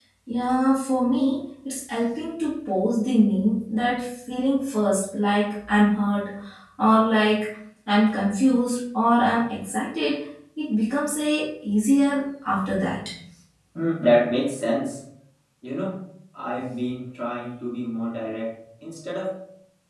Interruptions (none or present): none